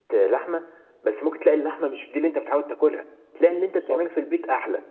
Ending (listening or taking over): listening